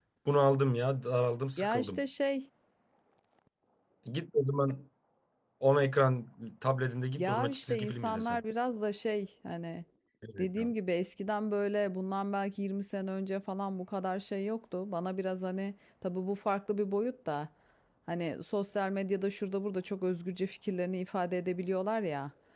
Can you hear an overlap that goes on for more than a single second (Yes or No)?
Yes